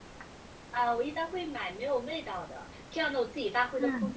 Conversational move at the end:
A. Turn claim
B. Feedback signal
B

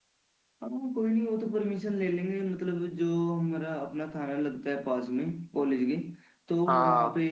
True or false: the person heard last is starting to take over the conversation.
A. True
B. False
B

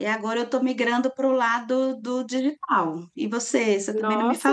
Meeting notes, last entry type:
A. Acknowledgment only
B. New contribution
B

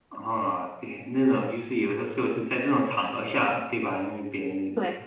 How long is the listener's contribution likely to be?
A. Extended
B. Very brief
B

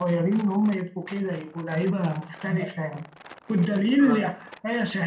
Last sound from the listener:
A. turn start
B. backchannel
B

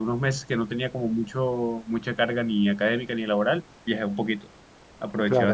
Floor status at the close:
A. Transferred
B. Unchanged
A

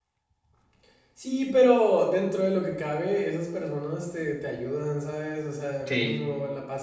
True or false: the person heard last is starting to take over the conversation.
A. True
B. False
B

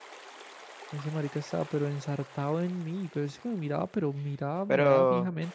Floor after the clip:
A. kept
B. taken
B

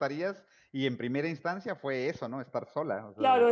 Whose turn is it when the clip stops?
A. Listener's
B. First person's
A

